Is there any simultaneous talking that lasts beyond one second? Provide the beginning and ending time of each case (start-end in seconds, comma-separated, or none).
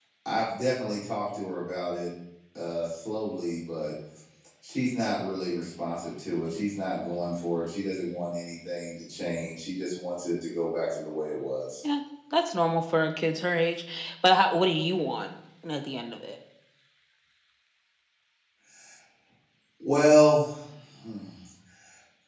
none